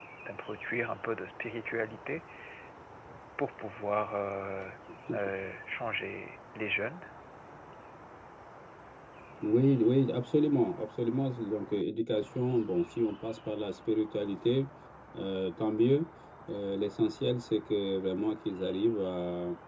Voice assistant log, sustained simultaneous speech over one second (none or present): none